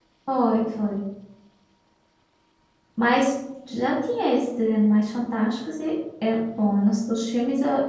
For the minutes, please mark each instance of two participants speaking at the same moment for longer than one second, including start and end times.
none

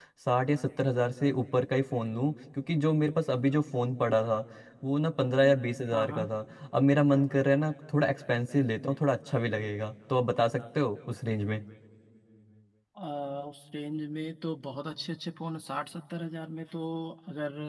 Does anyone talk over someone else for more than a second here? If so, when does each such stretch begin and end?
none

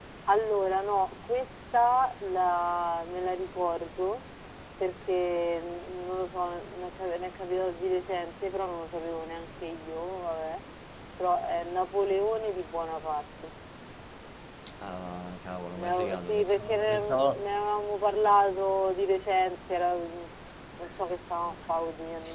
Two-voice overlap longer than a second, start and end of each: 15.7-17.4

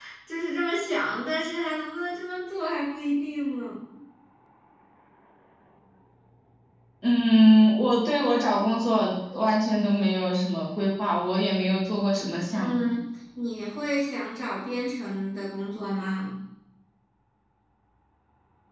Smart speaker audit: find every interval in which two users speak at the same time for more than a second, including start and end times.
none

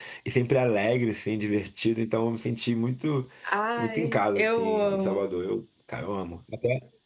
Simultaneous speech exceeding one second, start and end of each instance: 3.8-5.2

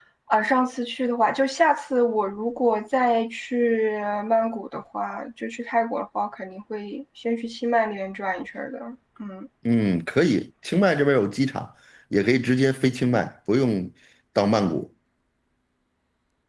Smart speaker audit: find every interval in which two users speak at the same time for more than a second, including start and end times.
none

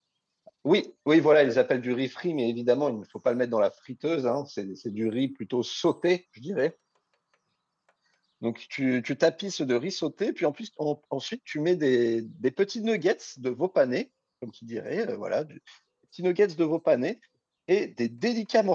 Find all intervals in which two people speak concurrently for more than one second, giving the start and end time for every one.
none

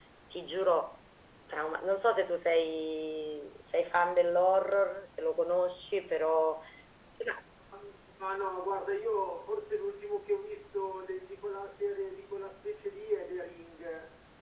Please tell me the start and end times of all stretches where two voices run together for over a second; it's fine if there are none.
none

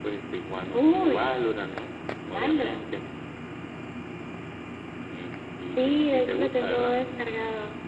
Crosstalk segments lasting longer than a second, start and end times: 5.6-7.0

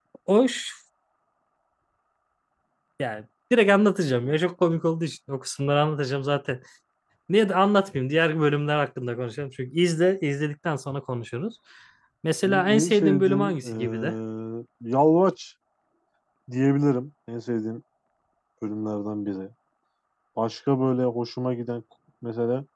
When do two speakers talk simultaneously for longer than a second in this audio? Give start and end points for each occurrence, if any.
12.4-14.1

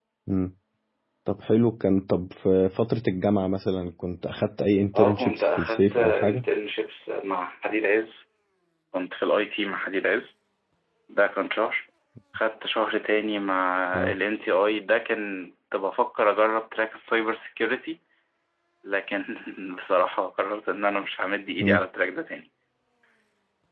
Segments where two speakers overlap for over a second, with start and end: 5.0-6.5

